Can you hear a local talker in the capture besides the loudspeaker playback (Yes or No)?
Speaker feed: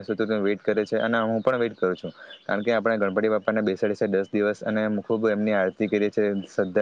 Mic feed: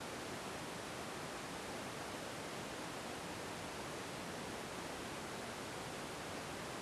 No